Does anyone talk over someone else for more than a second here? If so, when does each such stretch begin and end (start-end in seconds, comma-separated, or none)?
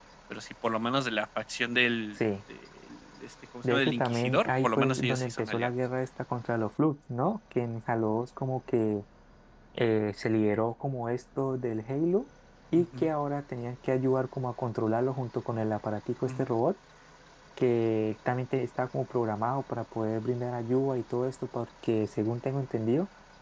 3.7-5.7